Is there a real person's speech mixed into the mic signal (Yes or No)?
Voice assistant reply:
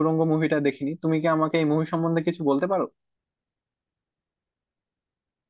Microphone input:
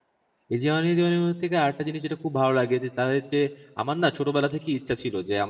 Yes